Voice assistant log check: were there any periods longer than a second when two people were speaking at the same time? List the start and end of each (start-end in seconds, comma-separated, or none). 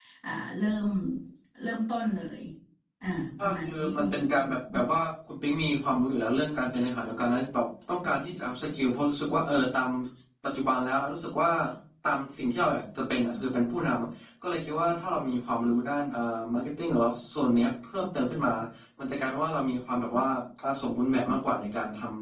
3.4-4.8